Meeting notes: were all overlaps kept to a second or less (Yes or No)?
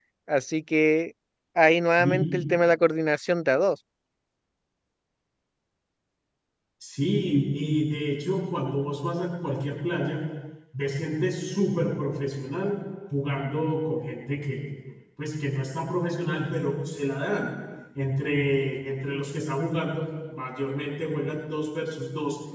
Yes